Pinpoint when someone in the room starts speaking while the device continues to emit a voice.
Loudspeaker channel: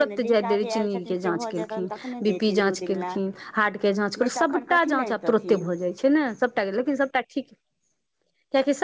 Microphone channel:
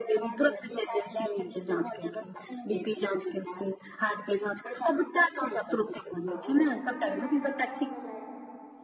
6.3 s

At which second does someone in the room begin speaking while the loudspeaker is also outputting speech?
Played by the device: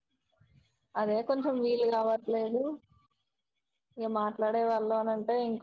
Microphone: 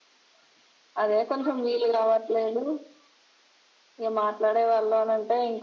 none

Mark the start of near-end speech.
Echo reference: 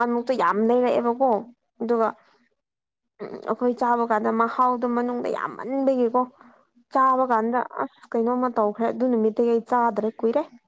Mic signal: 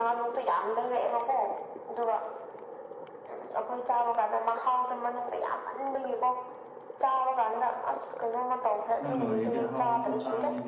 9.0 s

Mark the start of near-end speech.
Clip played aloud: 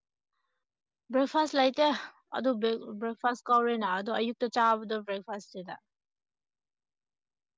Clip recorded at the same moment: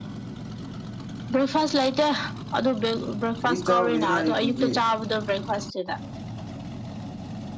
3.4 s

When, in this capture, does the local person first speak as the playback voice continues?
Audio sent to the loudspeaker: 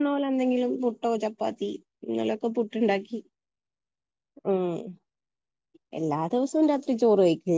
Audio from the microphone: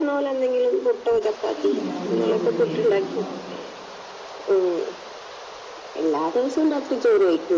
1.6 s

